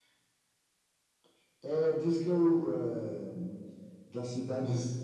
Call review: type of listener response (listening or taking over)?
listening